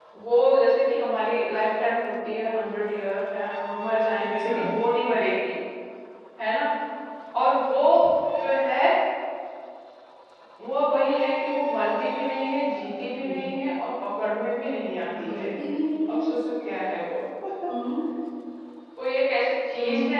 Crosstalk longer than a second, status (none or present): none